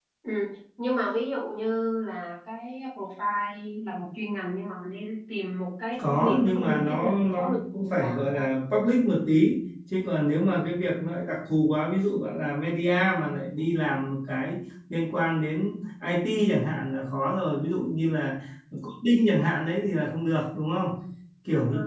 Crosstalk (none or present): present